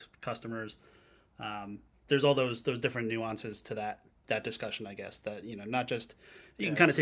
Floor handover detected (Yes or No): No